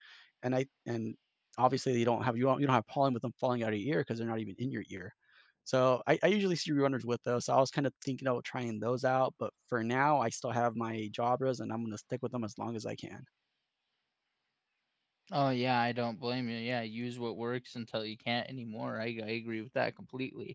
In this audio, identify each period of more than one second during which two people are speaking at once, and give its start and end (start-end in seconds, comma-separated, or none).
none